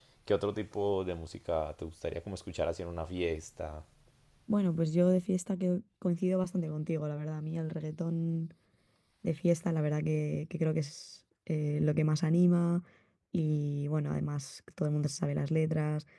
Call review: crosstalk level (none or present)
none